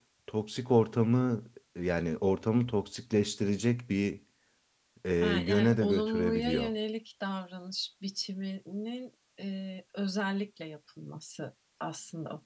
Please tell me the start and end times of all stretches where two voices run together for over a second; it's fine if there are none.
5.2-6.7

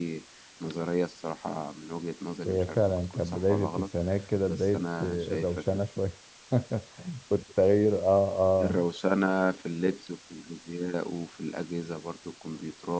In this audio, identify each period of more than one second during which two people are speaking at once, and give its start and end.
2.5-3.9, 4.5-5.8

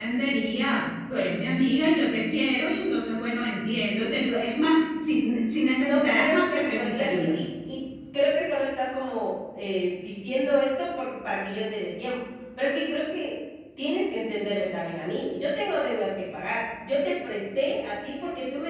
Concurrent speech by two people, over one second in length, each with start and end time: 5.7-7.4

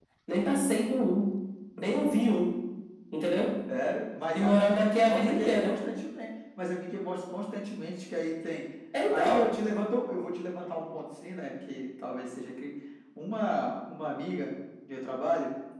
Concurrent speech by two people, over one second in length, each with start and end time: 4.3-5.8

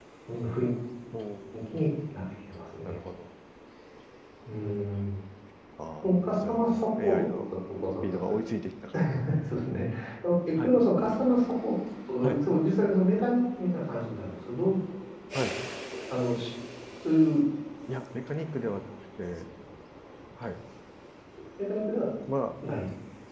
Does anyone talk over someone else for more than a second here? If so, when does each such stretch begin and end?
6.2-7.4

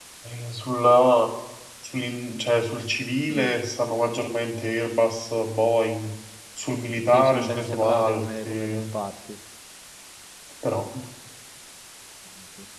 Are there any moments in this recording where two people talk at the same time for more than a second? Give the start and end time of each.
7.1-8.8

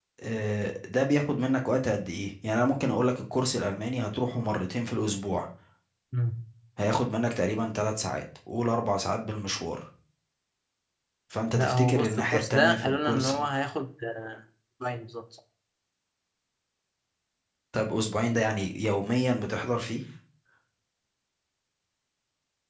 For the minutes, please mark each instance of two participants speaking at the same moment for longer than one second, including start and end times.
11.5-13.3

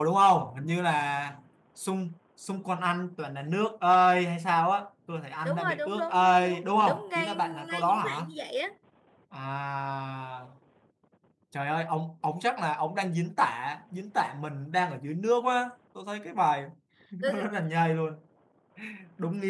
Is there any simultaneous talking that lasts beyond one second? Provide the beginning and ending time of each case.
5.5-8.3

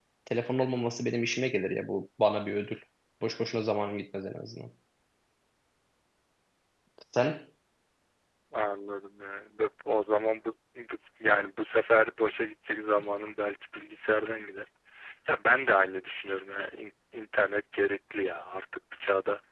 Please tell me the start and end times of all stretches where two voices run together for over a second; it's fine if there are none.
none

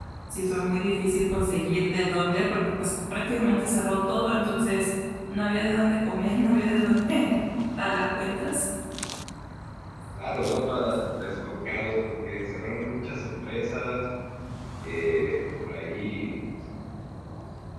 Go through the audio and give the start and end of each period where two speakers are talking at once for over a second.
none

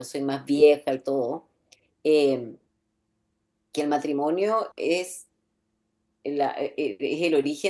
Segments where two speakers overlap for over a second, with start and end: none

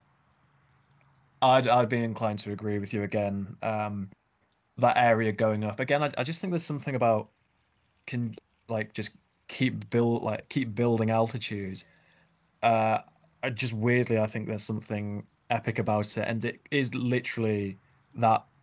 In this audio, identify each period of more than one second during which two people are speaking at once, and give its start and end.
none

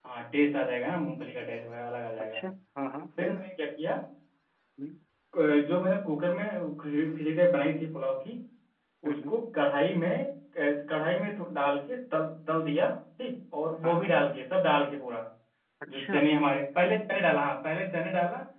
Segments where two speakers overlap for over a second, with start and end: none

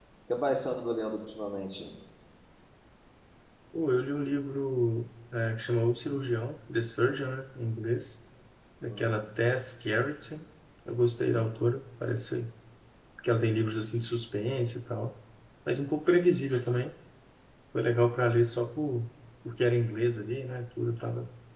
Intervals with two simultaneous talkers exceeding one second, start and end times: none

